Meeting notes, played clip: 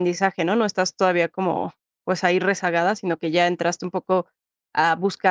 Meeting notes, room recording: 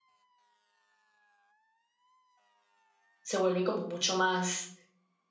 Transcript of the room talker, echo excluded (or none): se vuelve como mucho más,